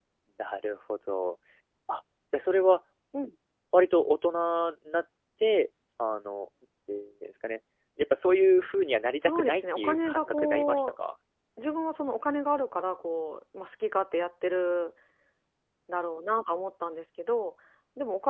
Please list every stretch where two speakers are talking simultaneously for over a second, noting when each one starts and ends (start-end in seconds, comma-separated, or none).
9.2-10.9